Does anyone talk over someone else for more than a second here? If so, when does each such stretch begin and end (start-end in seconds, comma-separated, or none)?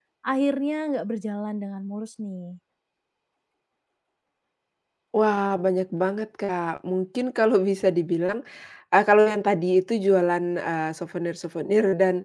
none